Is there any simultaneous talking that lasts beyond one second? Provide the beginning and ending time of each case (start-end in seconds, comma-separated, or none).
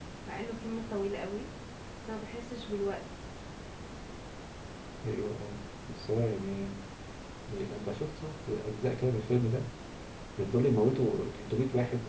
none